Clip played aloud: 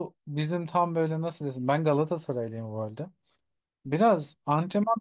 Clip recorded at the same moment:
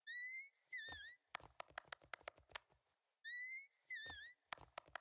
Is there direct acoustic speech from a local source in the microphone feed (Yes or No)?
No